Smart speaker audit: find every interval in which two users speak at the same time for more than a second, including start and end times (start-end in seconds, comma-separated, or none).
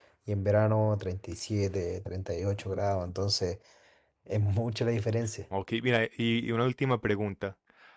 none